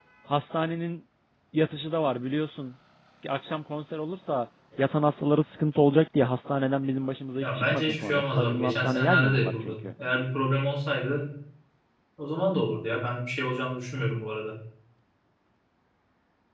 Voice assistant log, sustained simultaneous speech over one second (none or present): present